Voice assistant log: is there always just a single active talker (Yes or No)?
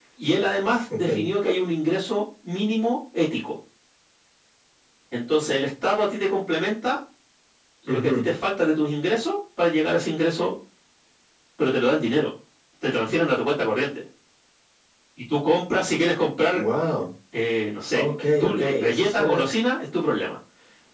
No